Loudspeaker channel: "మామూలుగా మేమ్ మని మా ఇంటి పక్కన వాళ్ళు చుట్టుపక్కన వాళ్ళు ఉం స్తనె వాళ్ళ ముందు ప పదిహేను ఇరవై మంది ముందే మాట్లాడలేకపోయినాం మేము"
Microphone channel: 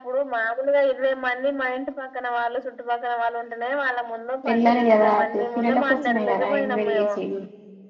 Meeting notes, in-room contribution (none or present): present